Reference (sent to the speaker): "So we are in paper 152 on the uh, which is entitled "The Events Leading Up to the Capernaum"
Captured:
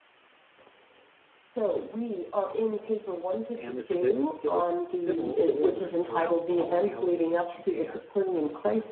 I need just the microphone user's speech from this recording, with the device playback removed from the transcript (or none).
and the civic, civic civil rulers throughout all Galilee and Judea.